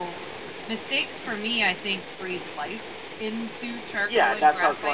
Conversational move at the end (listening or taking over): taking over